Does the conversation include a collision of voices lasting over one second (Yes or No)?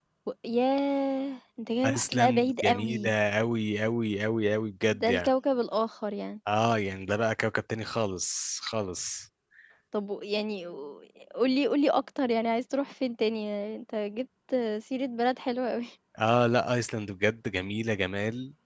Yes